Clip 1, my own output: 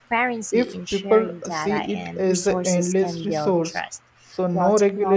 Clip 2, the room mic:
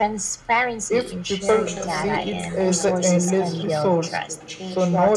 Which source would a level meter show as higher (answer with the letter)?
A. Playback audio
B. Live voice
A